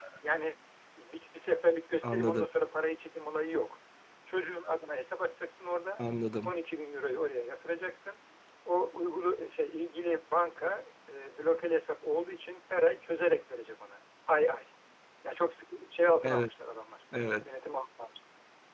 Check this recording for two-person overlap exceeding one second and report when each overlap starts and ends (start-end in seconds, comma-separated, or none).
none